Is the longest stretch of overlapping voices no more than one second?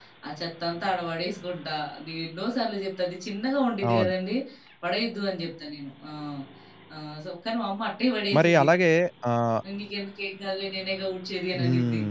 Yes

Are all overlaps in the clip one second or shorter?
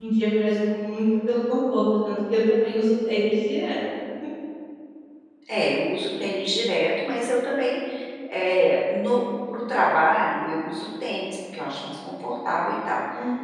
Yes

